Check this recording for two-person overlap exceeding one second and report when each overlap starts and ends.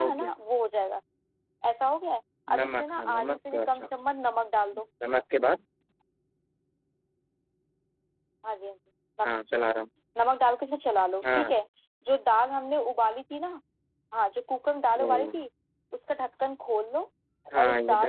2.6-3.8

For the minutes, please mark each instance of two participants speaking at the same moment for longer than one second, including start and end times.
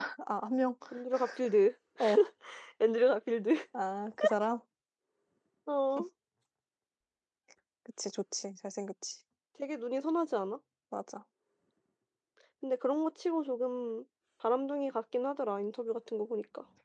none

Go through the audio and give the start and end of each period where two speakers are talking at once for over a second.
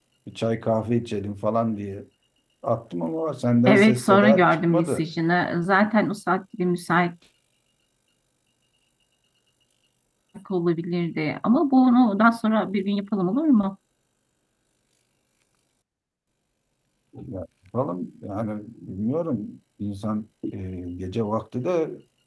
3.7-5.1

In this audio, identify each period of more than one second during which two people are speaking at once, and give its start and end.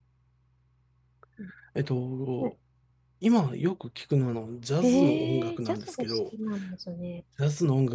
4.8-6.2

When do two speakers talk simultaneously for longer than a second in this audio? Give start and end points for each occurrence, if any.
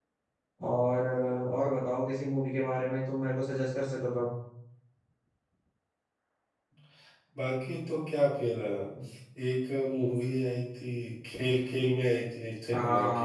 none

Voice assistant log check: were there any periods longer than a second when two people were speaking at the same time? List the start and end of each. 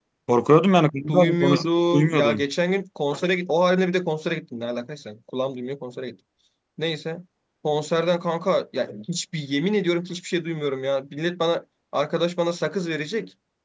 1.1-2.4

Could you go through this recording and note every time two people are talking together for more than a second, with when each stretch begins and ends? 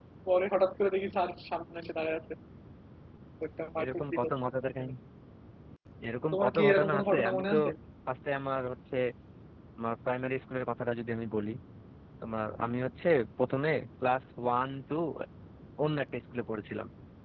6.3-7.6

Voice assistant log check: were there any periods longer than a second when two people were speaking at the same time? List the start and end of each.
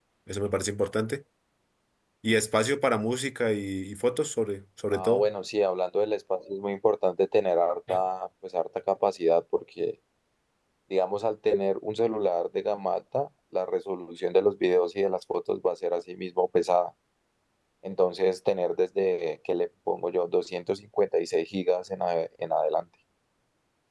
none

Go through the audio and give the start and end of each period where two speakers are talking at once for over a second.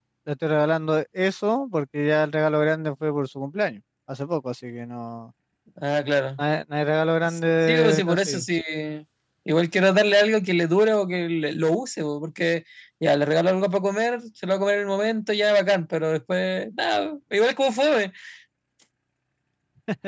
7.2-8.5

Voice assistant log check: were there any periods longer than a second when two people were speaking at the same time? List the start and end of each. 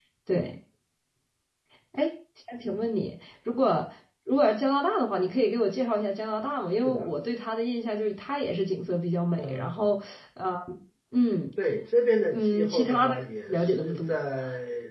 12.3-14.2

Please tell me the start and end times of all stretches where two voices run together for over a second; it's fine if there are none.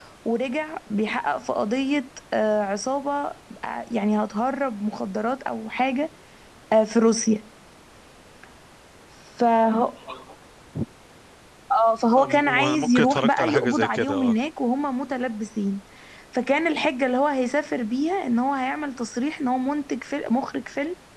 12.2-14.3

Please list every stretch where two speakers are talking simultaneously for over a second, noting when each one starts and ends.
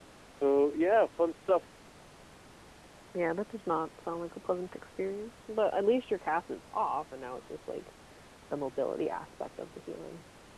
none

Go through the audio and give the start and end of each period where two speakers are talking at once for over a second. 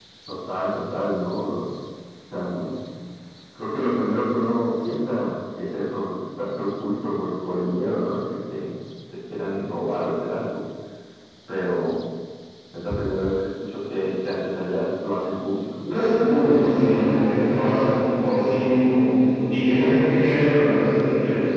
none

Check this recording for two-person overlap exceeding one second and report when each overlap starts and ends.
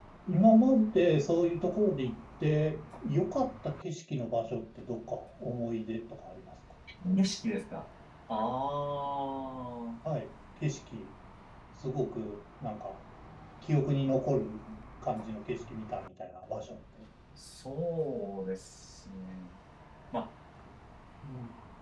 none

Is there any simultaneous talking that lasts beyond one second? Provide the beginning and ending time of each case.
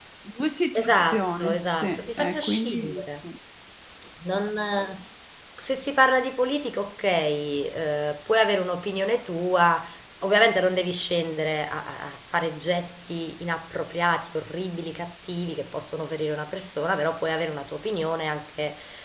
0.8-3.0

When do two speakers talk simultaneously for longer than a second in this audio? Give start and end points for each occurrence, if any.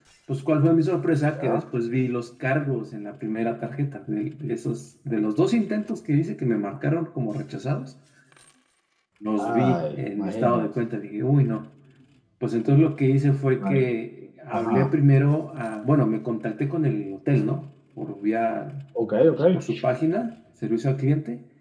9.4-10.7

